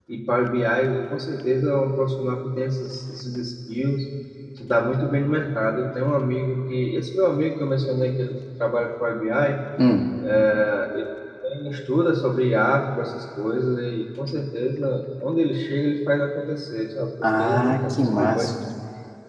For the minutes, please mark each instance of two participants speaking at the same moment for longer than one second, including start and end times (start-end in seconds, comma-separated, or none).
17.2-18.5